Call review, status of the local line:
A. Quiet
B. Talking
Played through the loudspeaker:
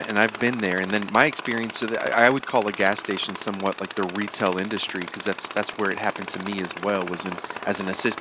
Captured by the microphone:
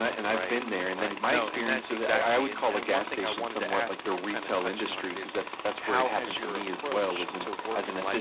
B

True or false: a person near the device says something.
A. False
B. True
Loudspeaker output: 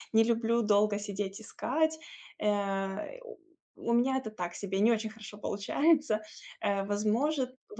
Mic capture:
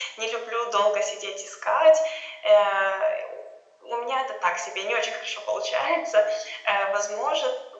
A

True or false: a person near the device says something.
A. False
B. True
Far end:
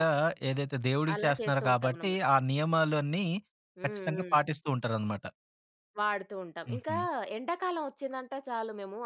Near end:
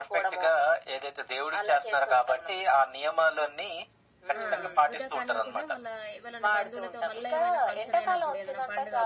B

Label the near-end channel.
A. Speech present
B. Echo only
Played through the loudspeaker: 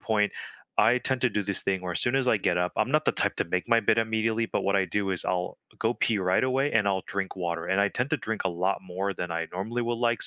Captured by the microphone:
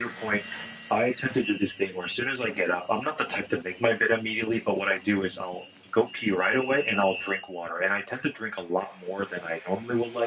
B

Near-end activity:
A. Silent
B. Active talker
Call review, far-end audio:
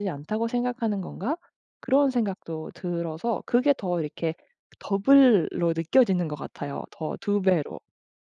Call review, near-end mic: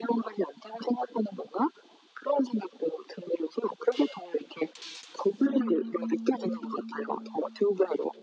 B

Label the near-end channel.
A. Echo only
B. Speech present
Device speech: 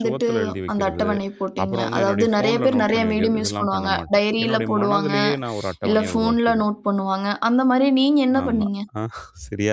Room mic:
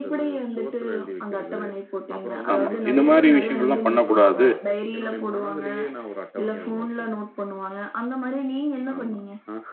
B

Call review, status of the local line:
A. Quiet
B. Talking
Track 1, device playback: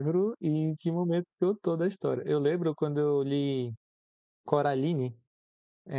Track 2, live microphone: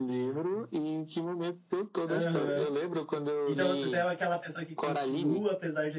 B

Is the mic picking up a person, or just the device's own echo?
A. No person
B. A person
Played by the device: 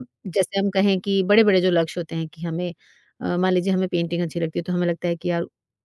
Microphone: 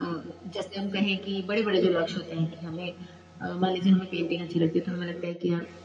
A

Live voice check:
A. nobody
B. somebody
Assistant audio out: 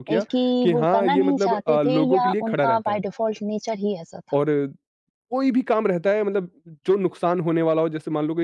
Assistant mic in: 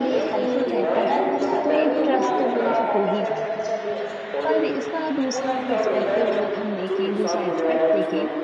B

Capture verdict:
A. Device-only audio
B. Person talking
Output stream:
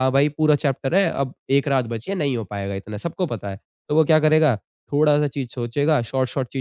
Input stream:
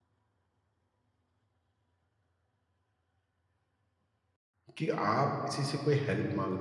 B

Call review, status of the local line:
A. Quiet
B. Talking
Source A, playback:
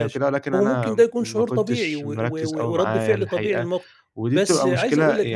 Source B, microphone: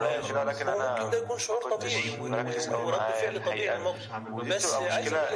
B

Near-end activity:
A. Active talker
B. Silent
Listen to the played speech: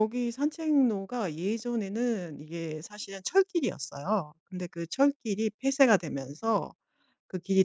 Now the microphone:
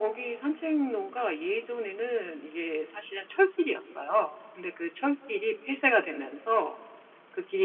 B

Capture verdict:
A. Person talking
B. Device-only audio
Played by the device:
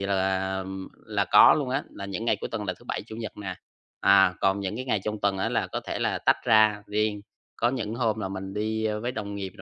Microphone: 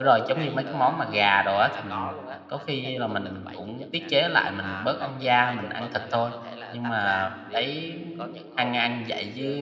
A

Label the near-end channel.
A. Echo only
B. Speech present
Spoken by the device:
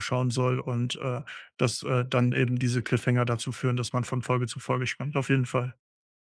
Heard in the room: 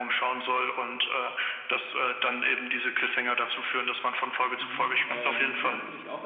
B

